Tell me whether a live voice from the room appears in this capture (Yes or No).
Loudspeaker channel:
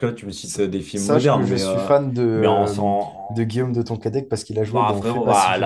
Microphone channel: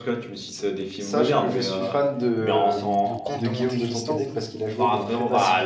Yes